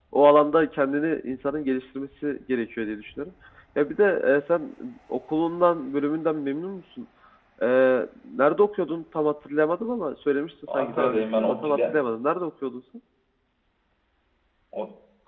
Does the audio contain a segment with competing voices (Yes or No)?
Yes